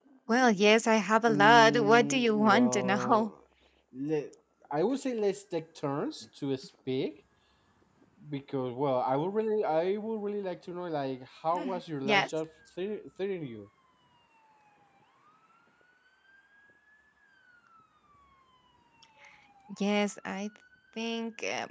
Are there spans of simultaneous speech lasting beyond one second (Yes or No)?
Yes